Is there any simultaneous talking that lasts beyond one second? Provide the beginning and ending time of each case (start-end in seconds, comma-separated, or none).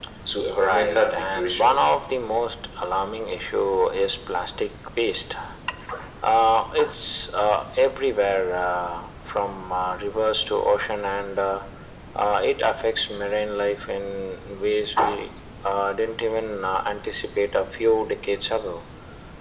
0.6-1.8